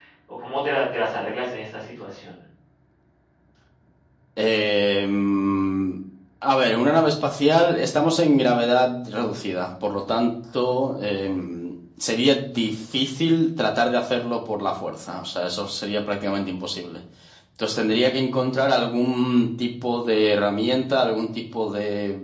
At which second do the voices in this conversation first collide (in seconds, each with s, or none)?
none